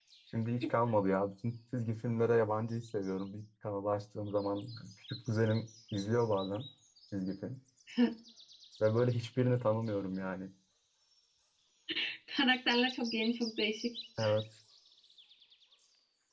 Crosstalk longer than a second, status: none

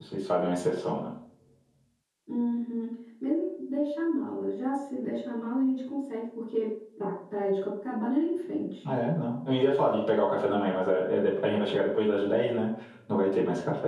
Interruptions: none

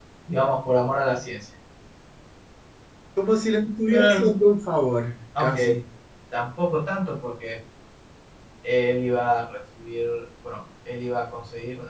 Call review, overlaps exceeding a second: none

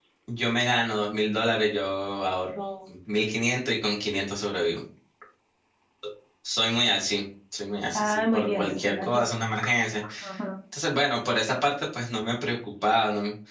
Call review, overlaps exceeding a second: present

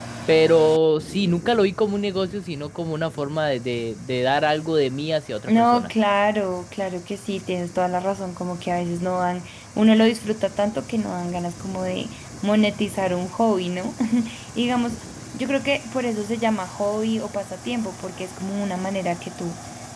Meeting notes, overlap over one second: none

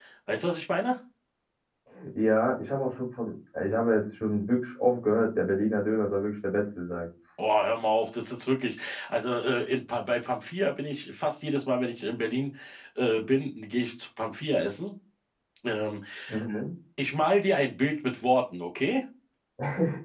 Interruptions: none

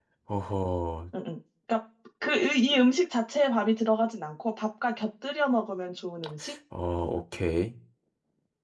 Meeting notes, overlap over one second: none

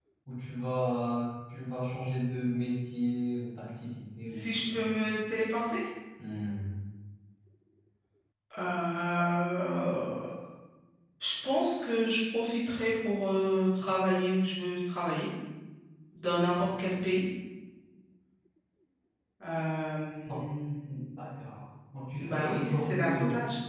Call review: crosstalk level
present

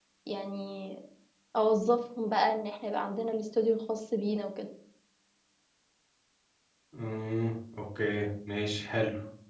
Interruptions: none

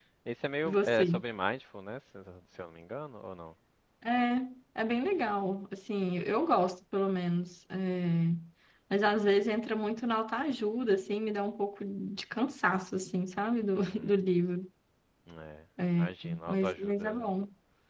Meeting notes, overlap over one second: present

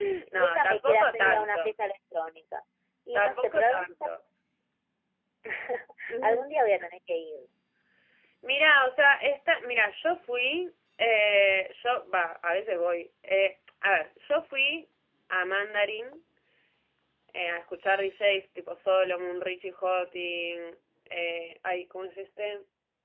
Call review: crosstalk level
present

